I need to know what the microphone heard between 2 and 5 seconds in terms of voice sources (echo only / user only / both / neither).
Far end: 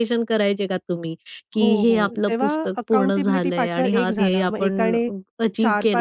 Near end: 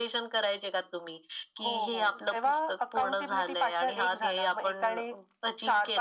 echo only